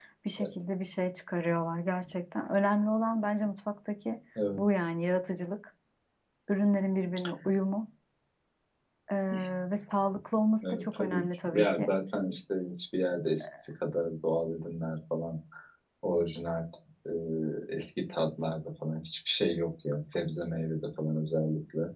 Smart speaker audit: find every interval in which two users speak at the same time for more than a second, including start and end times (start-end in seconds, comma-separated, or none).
10.7-11.9